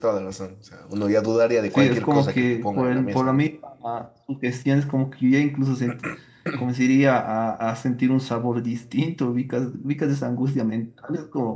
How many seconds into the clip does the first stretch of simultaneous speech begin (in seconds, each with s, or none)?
1.8 s